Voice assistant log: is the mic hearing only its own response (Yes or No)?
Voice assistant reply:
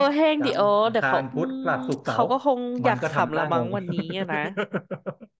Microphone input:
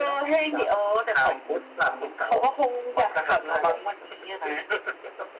Yes